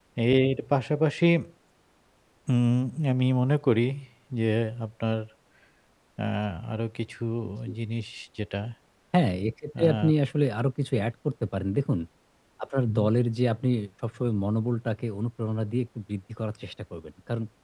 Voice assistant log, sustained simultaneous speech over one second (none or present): none